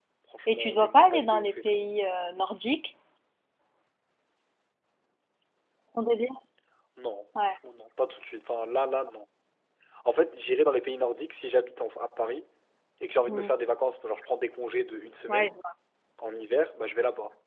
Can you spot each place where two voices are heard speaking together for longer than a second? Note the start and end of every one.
0.5-1.8

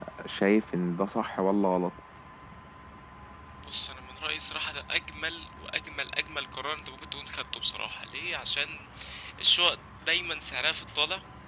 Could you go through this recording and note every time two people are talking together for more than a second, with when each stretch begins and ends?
none

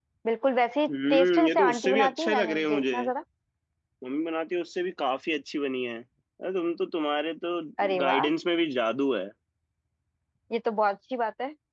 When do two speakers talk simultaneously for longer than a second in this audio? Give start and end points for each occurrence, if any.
1.1-3.0

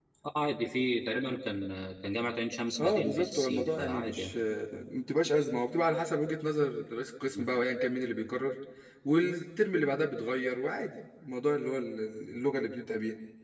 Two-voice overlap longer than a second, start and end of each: 2.8-4.3

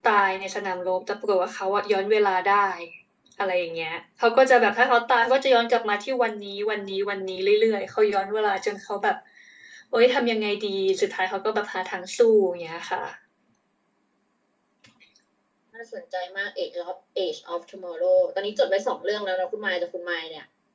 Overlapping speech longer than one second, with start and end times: none

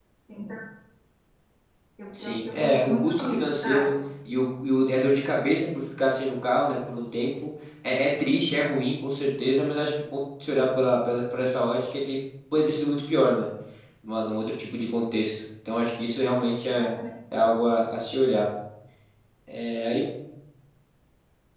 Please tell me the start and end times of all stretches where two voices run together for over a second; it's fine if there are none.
2.1-3.9

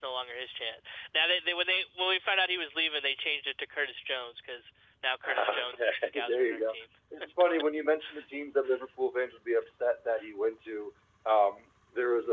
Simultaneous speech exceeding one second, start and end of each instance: 5.3-6.7

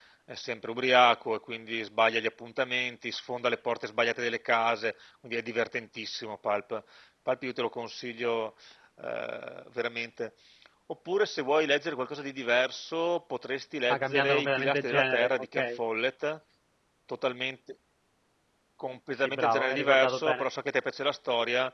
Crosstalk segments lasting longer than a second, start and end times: 13.9-15.8, 19.1-20.4

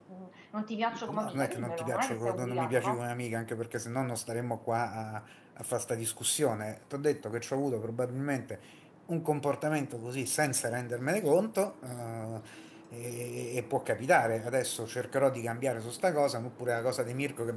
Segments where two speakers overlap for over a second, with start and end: 0.9-3.0

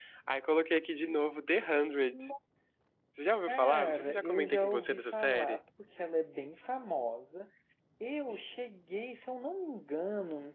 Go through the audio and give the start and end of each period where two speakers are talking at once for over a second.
3.5-5.6

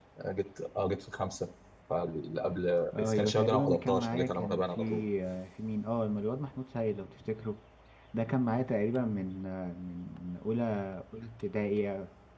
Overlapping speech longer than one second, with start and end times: 3.0-4.8

